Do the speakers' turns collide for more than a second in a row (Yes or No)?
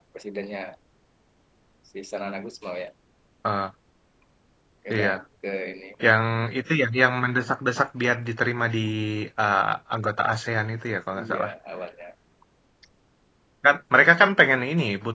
No